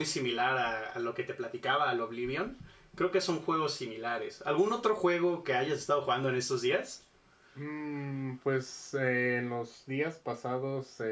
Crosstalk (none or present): none